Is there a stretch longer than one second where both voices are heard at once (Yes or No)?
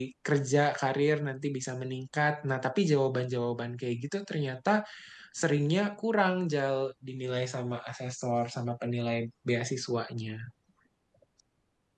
No